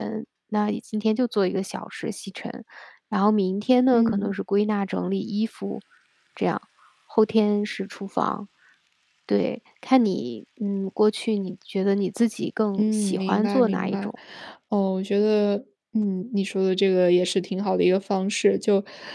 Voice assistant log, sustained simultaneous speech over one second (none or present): present